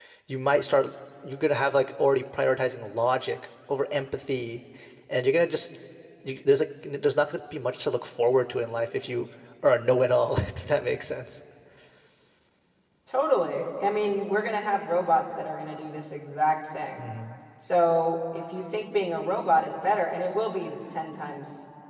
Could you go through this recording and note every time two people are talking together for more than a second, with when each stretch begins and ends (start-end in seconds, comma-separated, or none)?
none